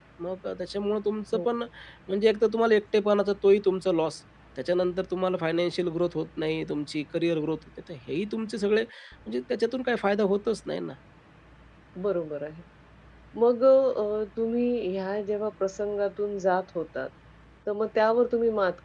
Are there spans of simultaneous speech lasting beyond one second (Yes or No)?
No